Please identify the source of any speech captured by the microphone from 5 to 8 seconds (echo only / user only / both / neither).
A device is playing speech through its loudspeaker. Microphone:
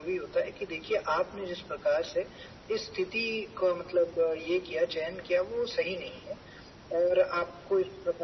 echo only